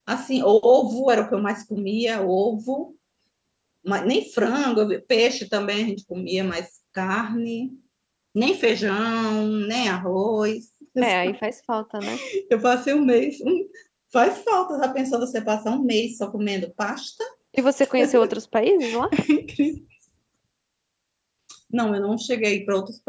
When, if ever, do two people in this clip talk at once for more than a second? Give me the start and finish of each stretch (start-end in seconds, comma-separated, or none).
none